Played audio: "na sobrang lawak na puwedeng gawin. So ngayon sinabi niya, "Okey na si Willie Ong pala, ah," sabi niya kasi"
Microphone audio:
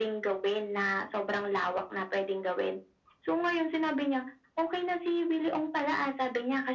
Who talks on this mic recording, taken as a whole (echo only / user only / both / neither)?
echo only